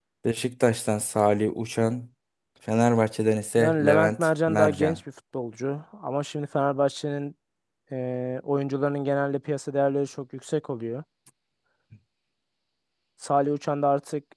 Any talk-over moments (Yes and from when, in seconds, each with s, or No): Yes, from 3.5 s